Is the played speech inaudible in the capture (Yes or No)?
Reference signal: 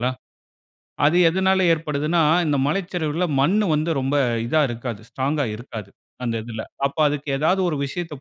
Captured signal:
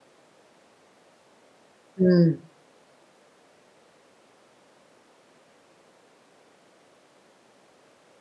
Yes